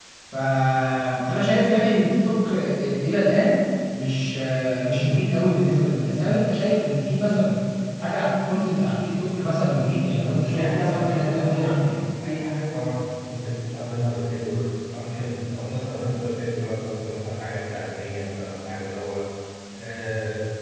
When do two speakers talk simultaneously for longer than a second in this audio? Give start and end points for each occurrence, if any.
10.5-11.9

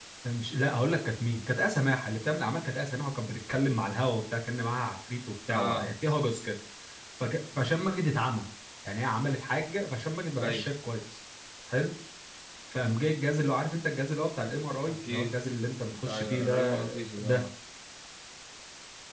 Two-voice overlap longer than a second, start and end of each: 15.9-17.4

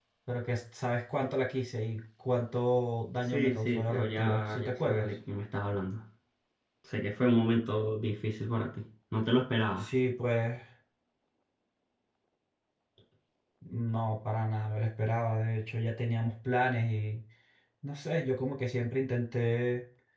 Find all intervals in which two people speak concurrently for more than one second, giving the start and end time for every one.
3.3-5.1

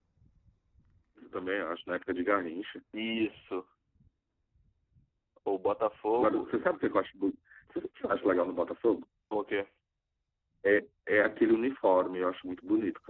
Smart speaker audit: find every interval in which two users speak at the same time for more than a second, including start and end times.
none

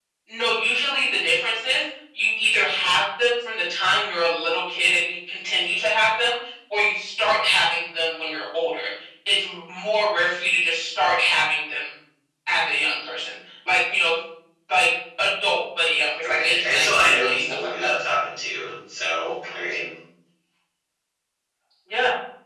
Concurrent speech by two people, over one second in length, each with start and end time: 16.4-17.9

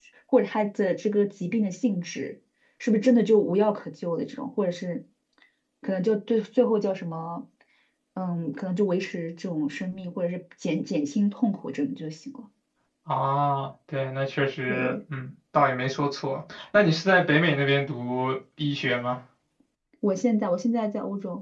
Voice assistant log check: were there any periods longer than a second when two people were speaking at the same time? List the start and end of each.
none

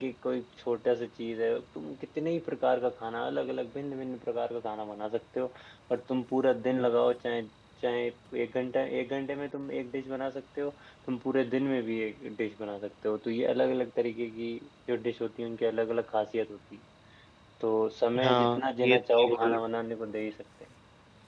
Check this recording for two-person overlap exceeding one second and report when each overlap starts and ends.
18.2-19.6

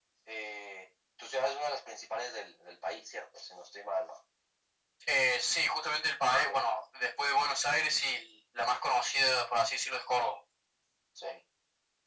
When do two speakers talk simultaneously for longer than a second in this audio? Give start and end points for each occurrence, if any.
none

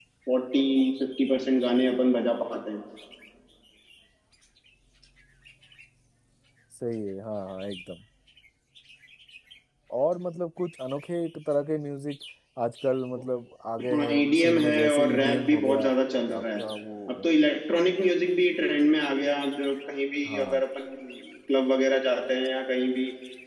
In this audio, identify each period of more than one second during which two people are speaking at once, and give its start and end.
13.9-15.8

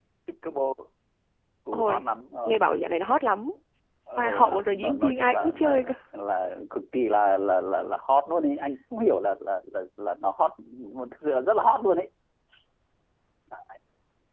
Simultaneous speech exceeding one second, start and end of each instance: 4.2-5.9

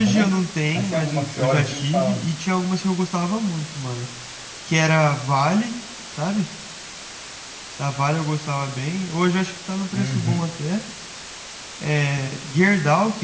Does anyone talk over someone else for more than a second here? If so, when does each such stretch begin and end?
0.7-2.3

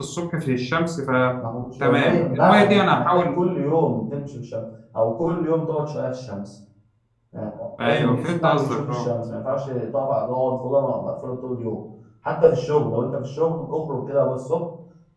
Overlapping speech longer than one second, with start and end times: 1.8-3.4, 7.8-9.1

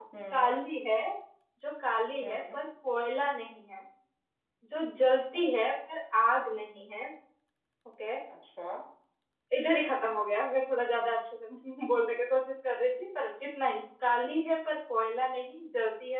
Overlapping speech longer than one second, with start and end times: none

